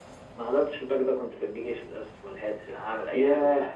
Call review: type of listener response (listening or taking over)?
taking over